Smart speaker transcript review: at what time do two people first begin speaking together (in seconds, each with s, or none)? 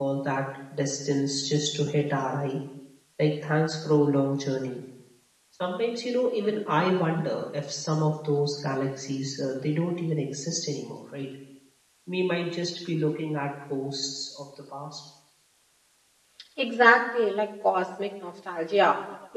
none